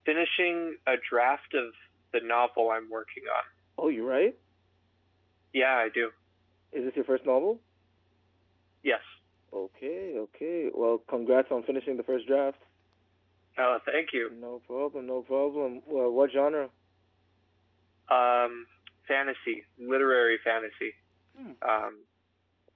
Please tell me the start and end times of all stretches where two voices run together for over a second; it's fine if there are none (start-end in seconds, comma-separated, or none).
none